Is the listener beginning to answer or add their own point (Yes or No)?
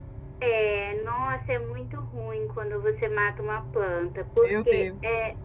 No